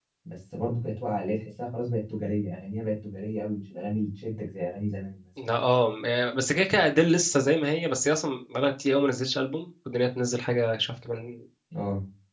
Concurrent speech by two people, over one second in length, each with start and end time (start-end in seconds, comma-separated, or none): none